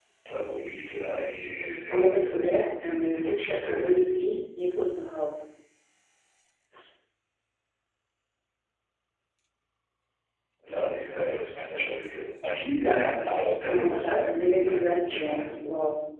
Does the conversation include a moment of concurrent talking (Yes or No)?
Yes